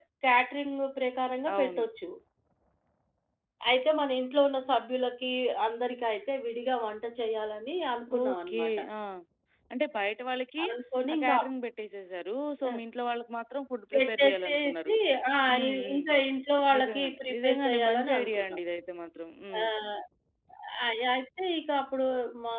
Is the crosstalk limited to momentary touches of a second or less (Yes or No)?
No